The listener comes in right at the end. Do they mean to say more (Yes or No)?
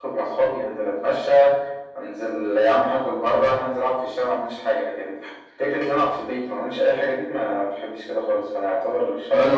Yes